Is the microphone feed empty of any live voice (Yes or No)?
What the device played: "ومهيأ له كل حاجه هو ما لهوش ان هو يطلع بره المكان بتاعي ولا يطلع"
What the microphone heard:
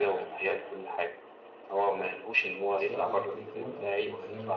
No